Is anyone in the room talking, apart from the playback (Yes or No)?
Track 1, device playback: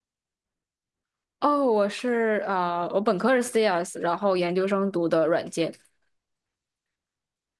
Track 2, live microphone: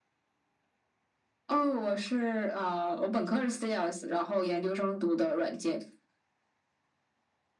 No